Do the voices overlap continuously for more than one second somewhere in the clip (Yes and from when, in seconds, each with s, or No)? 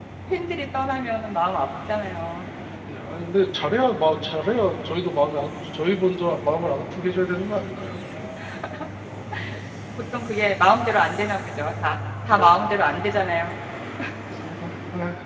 No